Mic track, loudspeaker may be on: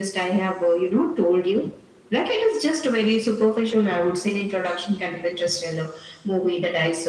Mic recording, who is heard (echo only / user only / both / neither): echo only